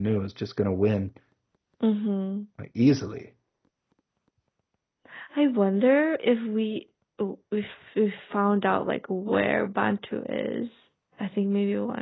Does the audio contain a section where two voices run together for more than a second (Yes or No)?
No